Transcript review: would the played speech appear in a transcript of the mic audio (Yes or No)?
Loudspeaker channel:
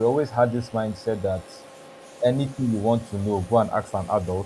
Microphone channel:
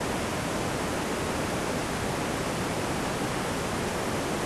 No